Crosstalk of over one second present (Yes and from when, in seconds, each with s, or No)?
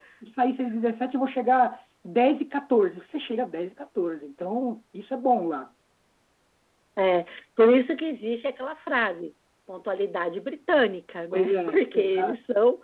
Yes, from 11.3 s